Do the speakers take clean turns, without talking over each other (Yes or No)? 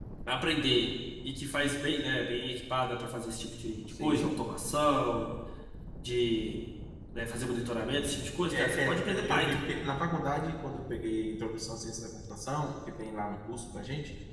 No